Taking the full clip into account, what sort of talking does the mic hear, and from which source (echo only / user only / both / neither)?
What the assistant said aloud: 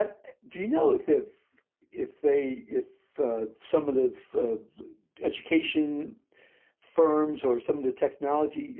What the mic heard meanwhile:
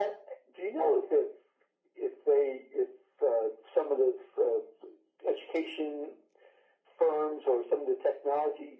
echo only